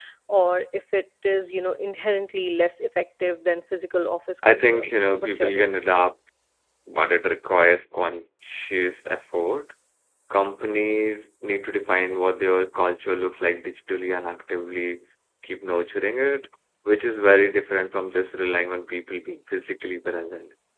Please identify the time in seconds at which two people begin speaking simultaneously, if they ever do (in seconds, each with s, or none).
4.4 s